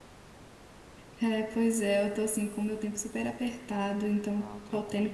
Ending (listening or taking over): listening